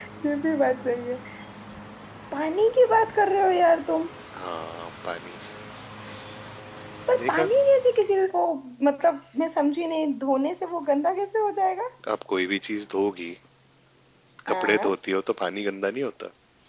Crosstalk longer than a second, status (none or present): none